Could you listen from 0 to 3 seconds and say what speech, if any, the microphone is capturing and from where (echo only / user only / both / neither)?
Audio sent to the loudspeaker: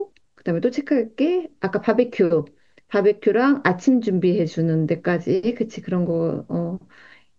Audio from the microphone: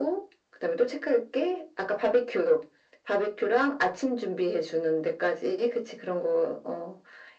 echo only